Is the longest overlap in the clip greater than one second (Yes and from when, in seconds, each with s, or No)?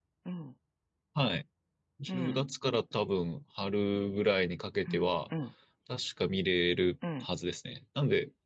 No